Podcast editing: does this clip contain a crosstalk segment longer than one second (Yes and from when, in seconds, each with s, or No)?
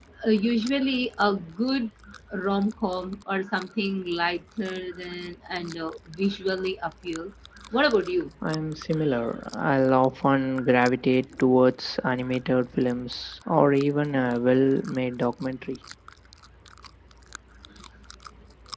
No